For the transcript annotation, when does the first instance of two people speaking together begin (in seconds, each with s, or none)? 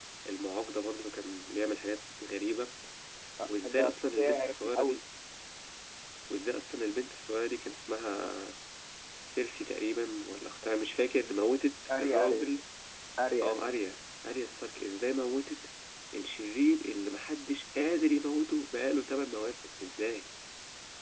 3.4 s